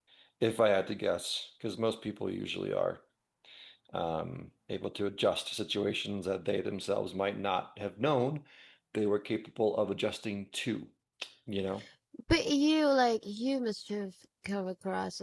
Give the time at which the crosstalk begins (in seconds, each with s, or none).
none